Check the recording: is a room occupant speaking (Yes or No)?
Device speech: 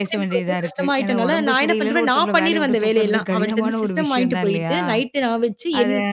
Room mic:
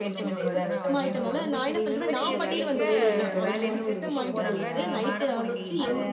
Yes